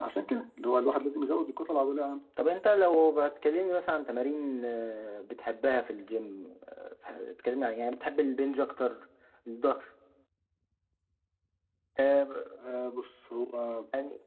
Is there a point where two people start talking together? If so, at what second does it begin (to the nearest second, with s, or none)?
none